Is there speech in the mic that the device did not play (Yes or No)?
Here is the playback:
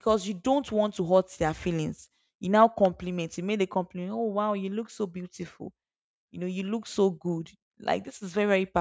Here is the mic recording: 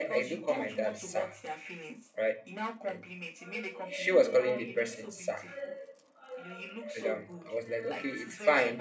Yes